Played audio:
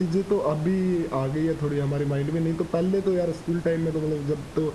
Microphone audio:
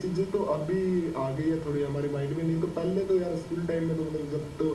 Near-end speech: none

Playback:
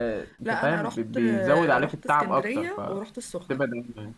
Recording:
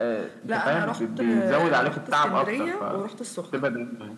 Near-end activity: none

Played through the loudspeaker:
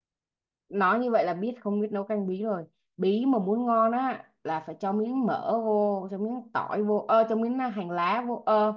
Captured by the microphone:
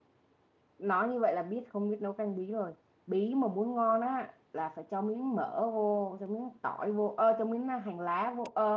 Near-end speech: none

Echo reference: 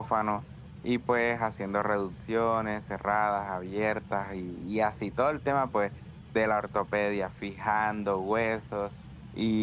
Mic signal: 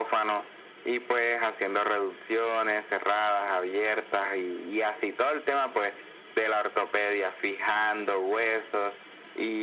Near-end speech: none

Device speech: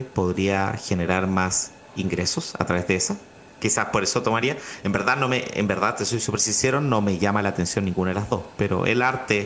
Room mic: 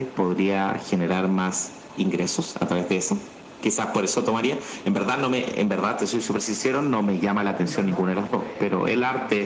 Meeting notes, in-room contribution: present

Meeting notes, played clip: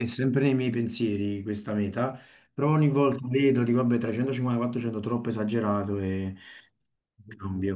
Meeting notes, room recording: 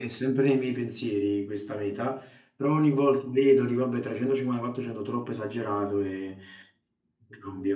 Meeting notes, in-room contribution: none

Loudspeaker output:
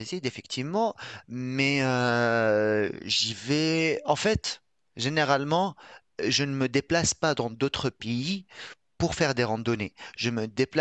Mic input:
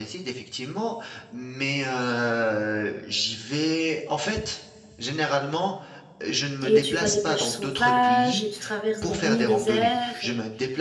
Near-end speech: present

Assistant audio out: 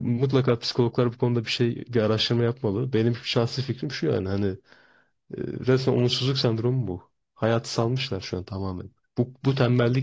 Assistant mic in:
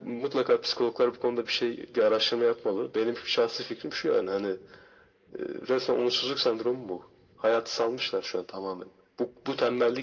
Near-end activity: none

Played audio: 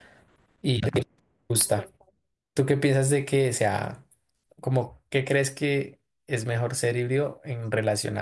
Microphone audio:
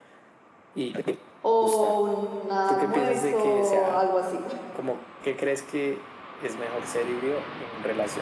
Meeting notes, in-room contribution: present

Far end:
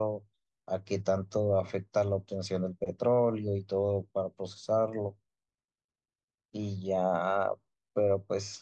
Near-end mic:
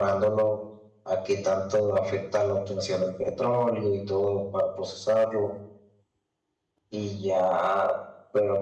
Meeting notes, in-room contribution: none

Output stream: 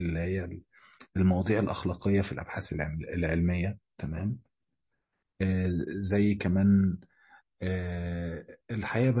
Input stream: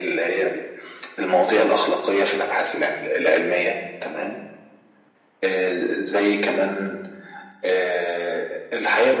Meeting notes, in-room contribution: none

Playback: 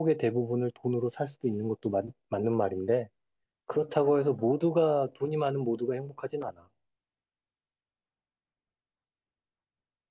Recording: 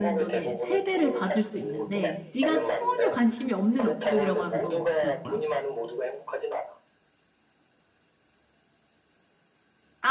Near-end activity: present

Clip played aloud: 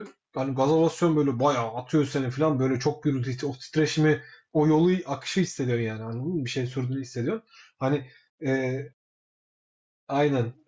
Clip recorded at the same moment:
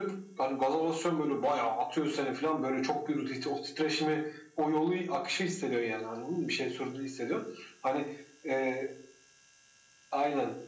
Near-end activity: none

